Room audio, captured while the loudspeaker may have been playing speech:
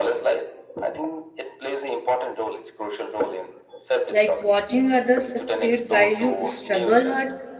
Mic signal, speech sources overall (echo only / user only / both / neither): both